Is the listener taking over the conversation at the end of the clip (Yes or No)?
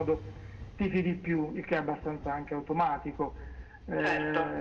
No